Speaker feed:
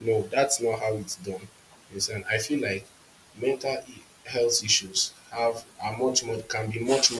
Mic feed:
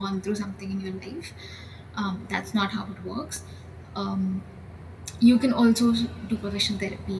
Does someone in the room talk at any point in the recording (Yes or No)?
Yes